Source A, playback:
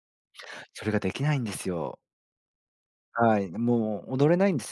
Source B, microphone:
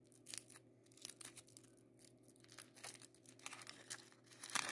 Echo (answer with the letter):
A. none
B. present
A